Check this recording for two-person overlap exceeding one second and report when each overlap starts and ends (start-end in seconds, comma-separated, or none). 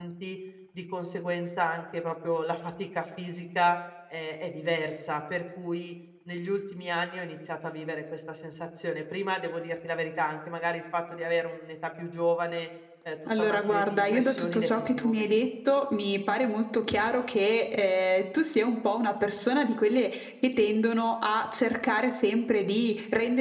13.4-15.4